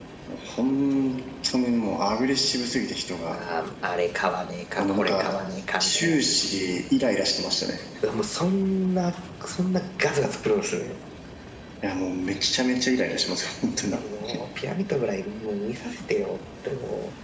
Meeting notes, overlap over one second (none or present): none